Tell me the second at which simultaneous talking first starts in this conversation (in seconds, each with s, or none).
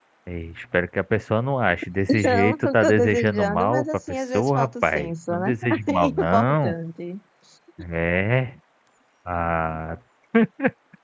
2.1 s